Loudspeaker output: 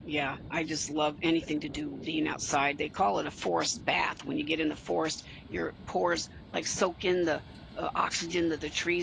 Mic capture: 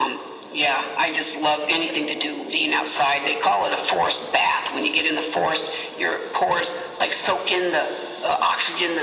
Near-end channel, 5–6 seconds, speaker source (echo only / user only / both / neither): echo only